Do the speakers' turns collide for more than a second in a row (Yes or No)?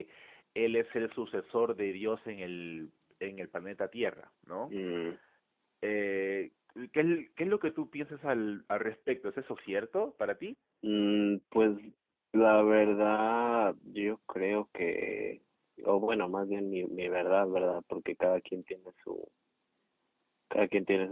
No